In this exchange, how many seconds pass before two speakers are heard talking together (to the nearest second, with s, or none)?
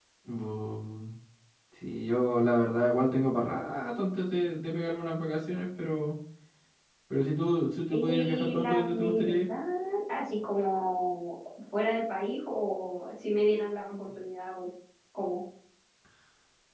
8 s